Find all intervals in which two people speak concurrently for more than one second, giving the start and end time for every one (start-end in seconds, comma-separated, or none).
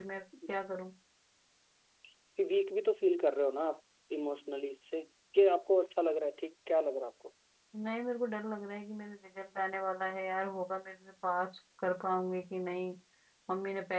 none